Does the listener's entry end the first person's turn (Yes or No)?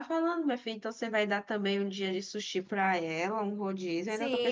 Yes